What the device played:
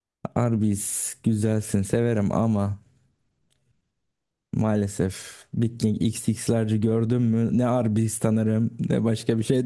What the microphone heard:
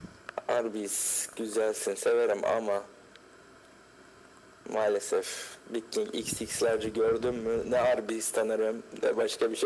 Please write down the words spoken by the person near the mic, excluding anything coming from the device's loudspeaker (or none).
none